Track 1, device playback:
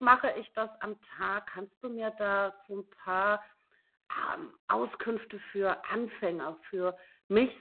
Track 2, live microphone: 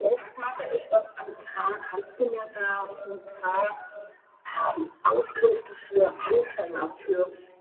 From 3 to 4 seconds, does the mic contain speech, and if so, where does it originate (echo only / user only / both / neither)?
echo only